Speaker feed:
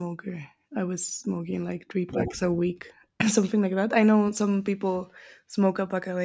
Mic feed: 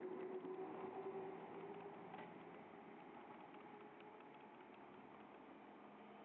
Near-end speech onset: none

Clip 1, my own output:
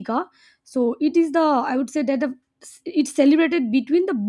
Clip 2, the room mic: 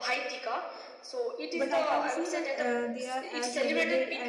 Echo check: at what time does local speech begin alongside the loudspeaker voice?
1.5 s

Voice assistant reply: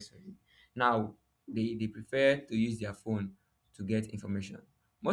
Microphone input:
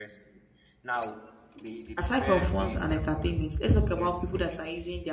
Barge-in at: 2.0 s

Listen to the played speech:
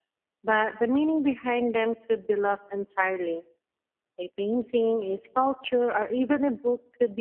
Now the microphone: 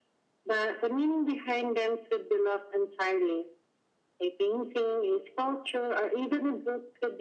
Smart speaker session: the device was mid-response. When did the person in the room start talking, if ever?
none

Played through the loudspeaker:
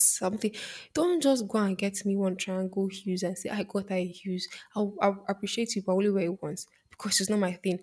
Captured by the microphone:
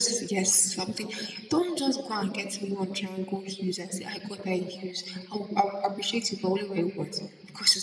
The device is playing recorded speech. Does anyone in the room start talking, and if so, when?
none

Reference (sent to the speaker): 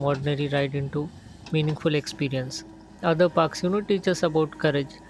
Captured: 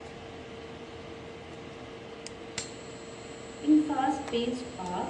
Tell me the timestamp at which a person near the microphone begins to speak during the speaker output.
3.6 s

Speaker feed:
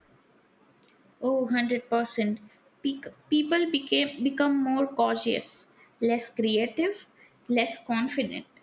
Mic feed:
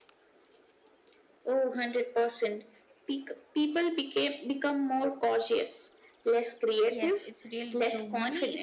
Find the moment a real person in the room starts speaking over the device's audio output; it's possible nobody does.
6.8 s

